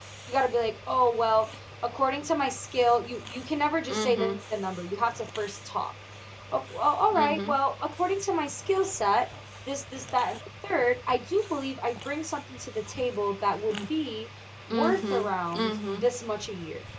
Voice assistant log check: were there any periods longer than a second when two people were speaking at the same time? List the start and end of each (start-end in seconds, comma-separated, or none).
14.7-16.1